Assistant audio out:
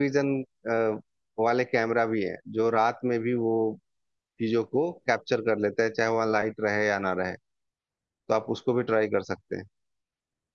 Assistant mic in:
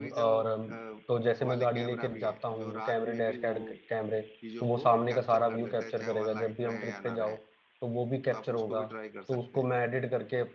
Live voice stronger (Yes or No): Yes